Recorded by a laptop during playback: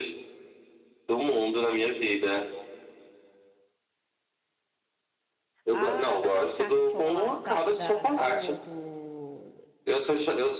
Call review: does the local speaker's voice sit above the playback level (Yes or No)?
No